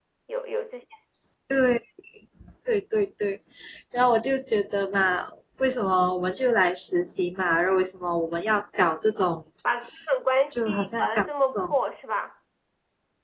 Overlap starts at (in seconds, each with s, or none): 10.5 s